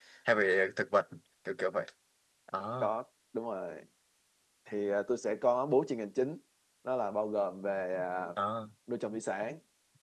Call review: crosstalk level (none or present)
none